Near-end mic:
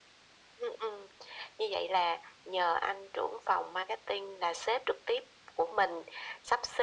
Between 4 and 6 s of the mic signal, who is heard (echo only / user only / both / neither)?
echo only